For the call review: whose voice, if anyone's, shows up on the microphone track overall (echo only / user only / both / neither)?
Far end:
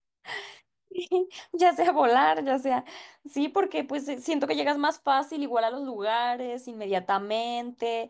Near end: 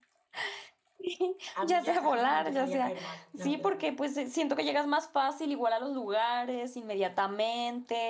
both